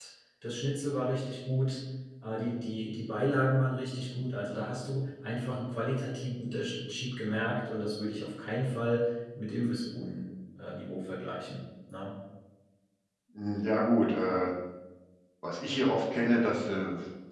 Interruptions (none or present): none